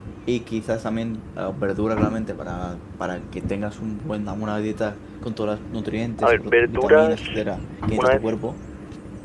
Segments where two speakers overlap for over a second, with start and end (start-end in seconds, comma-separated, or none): 6.2-7.4